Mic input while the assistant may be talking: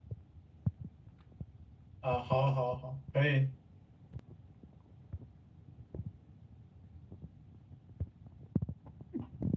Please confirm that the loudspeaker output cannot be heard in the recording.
Yes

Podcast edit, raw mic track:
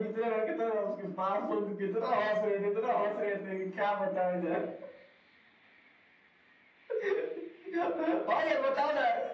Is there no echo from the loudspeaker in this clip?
No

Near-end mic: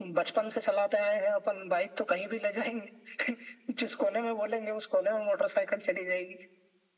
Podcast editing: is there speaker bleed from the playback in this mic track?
Yes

